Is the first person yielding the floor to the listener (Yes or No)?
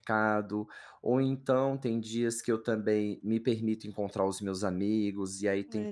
No